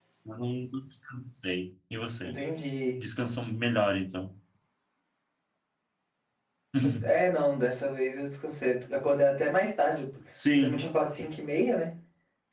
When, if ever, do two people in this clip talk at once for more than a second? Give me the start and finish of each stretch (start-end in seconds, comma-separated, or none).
none